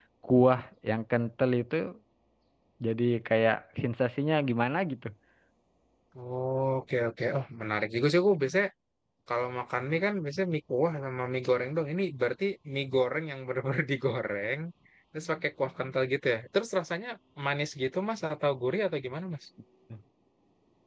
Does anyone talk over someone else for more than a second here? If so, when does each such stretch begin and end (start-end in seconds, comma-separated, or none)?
none